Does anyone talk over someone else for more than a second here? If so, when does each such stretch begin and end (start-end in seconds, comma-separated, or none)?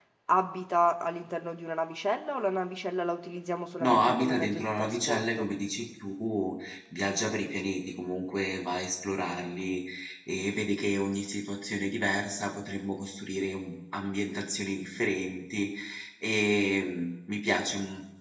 3.8-5.5